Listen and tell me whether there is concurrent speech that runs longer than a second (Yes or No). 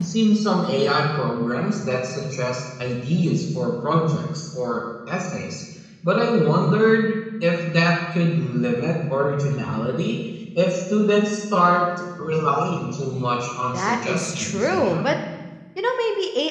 Yes